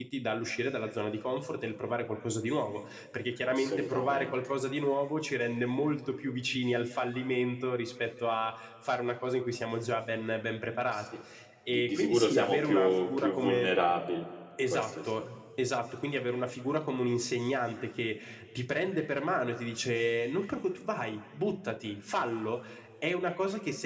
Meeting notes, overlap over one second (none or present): present